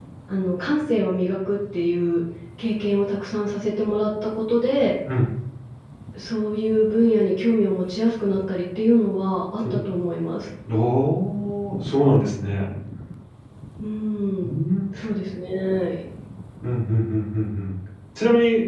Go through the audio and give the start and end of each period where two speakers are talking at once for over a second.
none

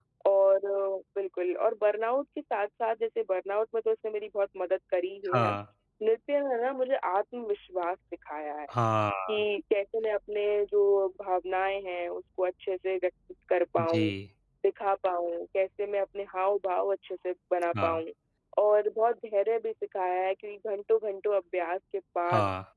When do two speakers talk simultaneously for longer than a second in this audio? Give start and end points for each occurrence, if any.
none

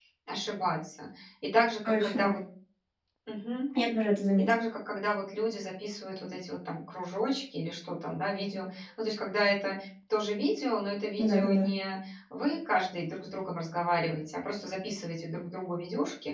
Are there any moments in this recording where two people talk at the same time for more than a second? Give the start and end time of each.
none

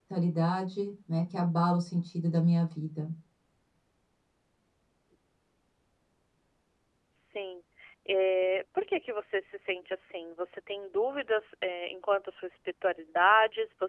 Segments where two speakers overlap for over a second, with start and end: none

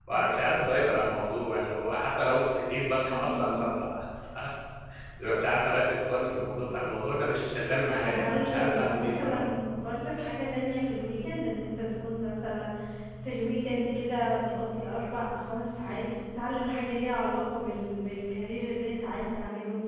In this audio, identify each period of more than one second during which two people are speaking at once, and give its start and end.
8.0-9.5

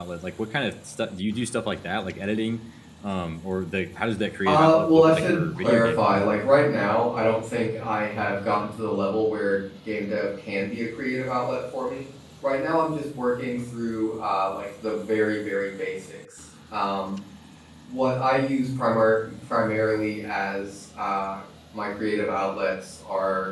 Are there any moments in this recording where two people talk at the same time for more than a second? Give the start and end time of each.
4.5-6.4

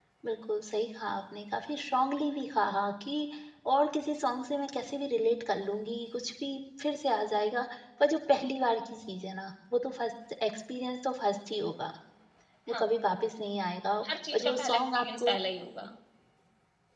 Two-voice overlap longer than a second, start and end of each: 14.1-15.3

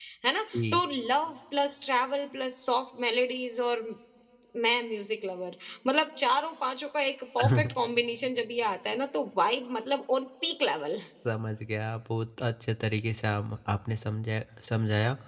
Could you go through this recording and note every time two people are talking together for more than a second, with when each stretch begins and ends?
none

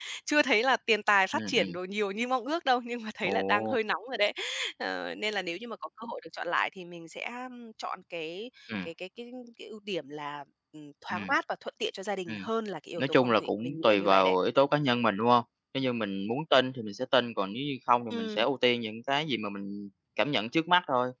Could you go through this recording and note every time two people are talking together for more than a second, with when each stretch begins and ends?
13.0-14.3

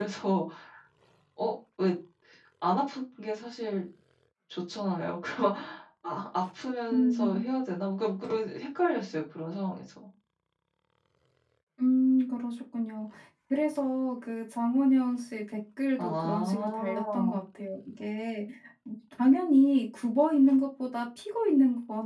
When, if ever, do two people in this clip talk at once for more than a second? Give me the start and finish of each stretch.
16.0-17.4

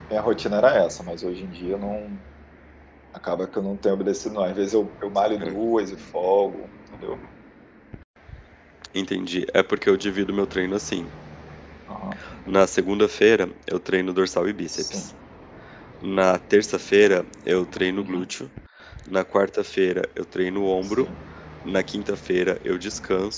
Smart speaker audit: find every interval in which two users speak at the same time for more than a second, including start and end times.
none

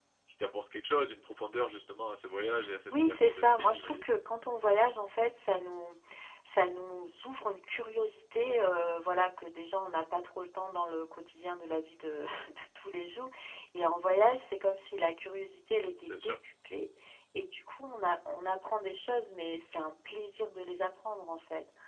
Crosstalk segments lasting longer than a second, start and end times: 2.9-4.1

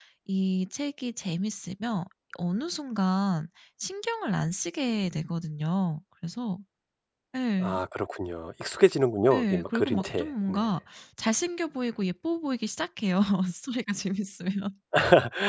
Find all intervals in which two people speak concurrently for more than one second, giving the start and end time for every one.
9.3-10.6

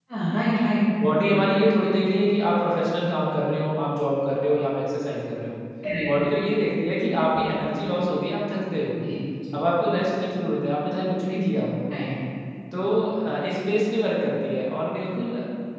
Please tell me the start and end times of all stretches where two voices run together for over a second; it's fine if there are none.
none

